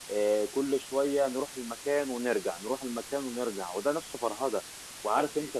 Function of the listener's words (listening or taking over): listening